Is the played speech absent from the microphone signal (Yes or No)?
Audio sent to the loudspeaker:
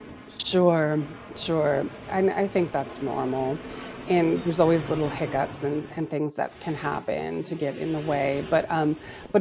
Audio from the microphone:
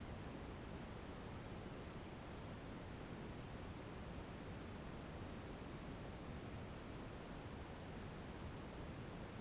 Yes